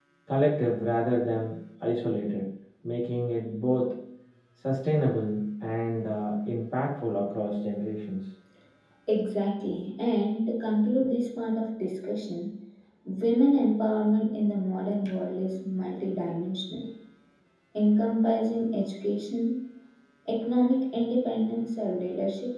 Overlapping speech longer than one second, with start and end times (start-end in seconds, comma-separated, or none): none